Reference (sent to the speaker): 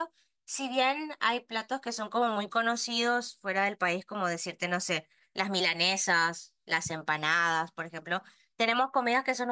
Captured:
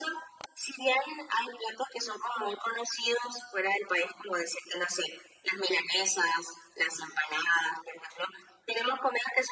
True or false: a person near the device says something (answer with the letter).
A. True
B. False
B